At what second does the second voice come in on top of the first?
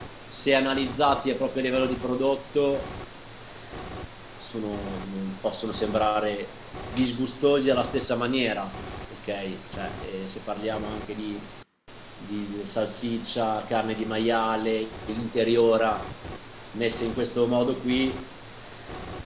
none

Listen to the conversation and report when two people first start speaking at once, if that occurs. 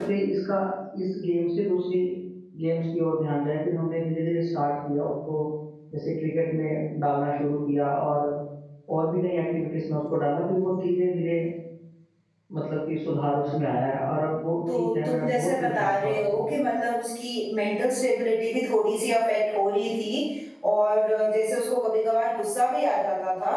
15 s

